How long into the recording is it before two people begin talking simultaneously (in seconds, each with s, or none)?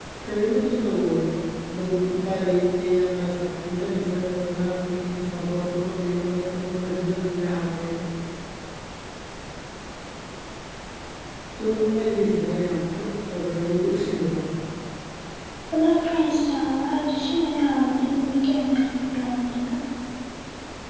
none